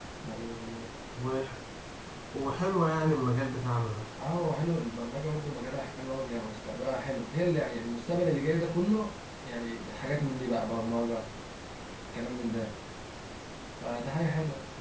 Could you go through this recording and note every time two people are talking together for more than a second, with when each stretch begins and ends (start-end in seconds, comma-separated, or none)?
none